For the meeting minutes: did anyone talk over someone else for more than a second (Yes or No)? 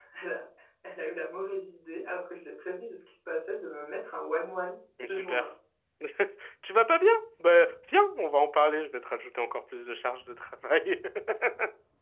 No